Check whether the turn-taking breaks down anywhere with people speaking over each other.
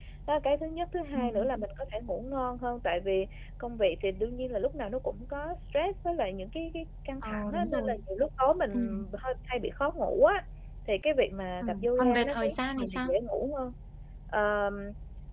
Yes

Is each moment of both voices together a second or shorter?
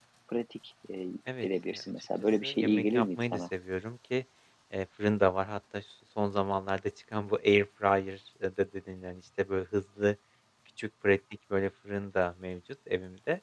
No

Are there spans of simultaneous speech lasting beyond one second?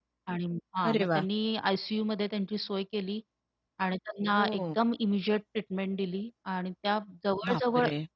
No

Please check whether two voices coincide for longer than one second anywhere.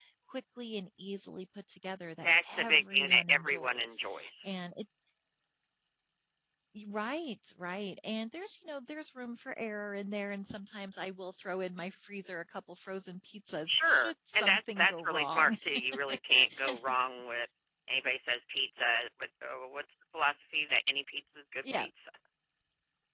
Yes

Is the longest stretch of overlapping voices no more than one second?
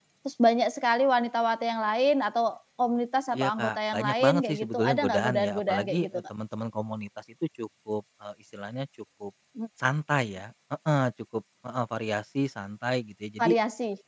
No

